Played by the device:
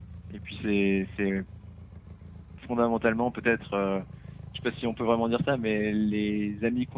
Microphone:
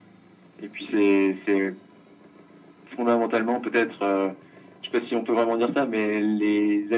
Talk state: echo only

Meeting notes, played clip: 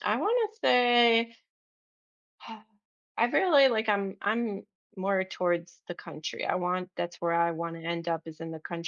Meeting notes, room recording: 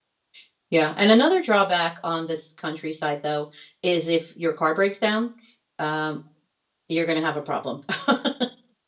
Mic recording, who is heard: user only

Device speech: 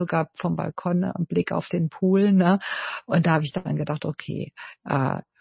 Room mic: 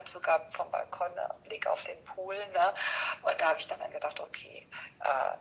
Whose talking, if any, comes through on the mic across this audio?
echo only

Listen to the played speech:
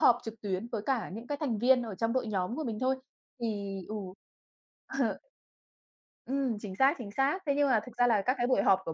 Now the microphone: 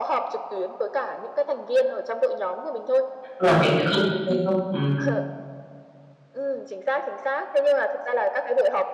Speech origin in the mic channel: both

